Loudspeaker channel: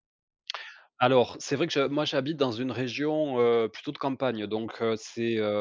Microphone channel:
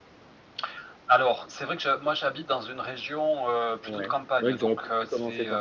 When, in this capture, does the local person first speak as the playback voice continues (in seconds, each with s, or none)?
3.8 s